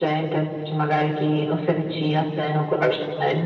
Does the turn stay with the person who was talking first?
No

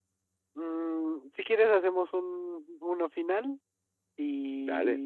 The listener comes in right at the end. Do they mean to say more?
No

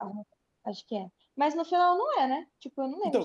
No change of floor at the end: No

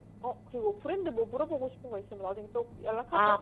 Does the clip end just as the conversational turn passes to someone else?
Yes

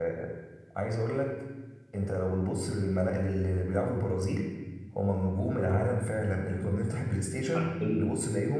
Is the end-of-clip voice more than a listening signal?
No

